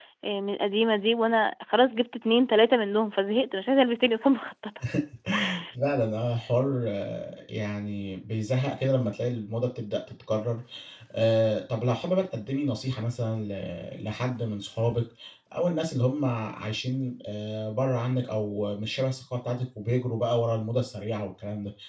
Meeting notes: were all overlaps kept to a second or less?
Yes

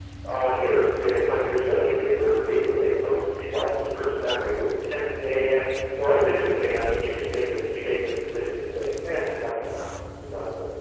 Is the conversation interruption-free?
Yes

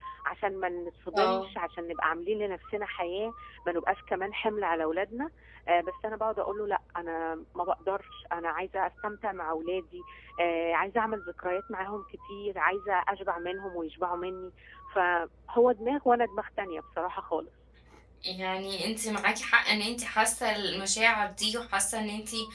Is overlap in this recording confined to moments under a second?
Yes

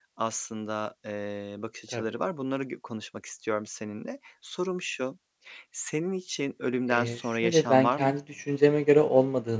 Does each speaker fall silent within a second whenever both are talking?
No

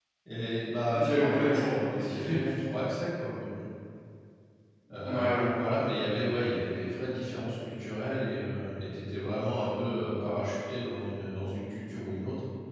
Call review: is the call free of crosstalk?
No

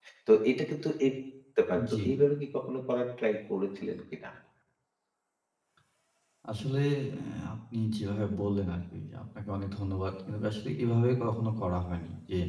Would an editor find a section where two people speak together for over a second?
No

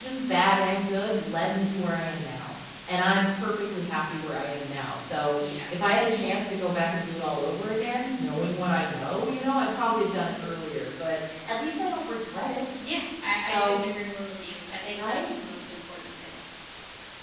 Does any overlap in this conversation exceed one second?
No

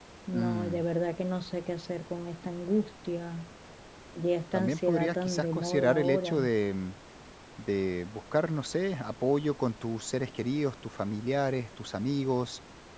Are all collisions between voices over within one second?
No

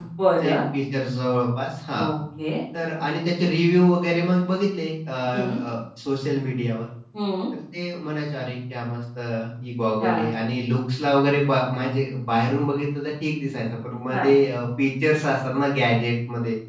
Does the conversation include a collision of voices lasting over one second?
No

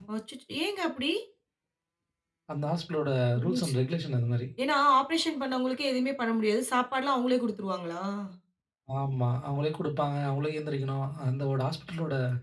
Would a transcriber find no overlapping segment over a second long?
Yes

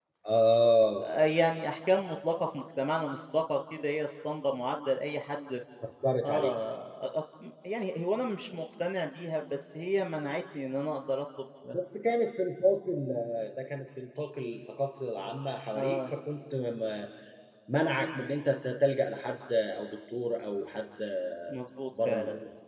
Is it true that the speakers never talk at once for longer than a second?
Yes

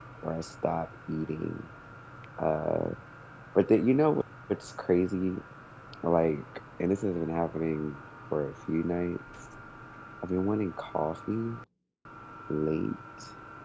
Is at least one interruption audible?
No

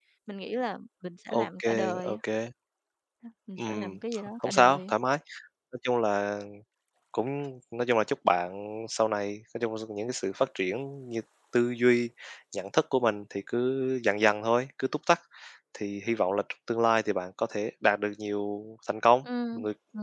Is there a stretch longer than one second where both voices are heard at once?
Yes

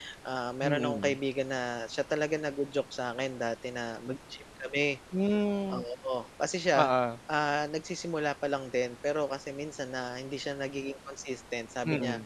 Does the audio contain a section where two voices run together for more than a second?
No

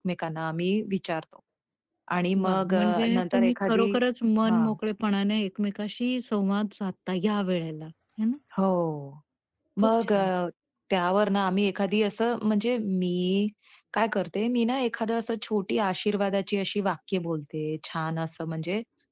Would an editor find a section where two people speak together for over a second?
Yes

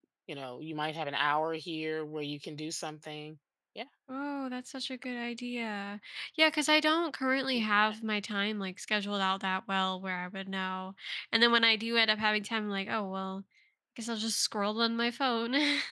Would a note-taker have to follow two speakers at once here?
No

